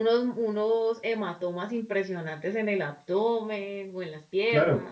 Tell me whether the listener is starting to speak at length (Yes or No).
Yes